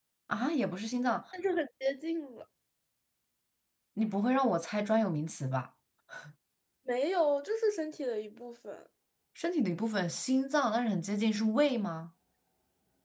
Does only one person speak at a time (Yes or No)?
Yes